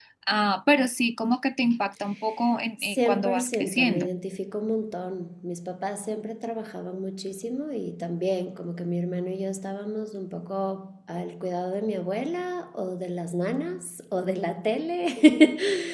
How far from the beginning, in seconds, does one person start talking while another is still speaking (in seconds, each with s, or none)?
2.8 s